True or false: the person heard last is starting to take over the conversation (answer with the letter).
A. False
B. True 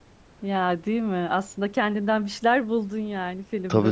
B